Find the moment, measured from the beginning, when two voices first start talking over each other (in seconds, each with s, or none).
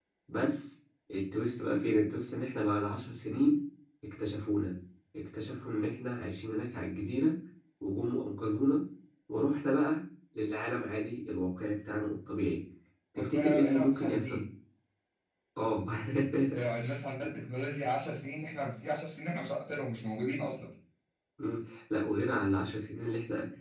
13.2 s